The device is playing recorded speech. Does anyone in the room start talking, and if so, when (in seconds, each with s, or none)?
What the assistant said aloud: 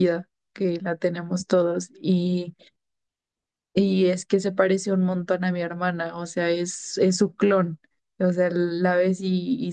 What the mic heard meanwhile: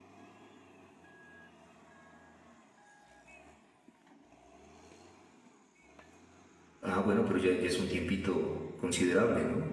6.8 s